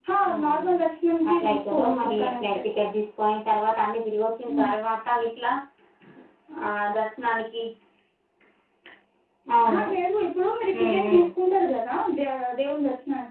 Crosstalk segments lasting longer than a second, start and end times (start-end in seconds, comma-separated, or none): 1.3-2.6